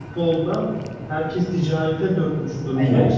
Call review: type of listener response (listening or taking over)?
listening